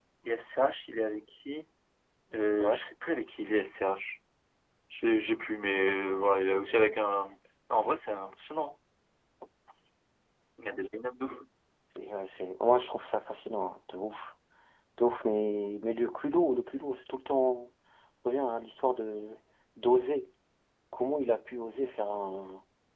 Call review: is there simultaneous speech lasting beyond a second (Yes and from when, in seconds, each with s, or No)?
No